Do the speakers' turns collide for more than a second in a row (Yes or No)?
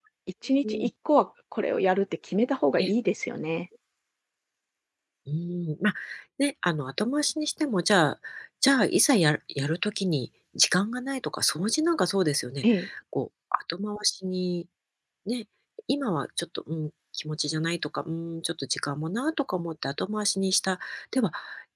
No